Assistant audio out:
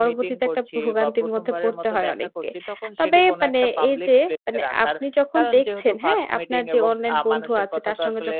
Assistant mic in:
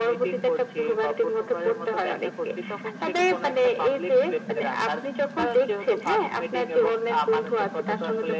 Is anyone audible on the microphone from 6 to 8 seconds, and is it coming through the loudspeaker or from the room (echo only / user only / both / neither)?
echo only